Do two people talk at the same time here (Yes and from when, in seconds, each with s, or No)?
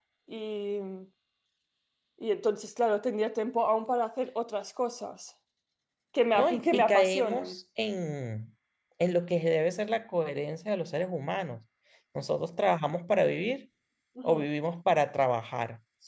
Yes, from 6.4 s